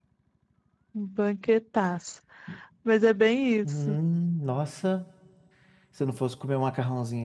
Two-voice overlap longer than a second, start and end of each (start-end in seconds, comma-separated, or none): none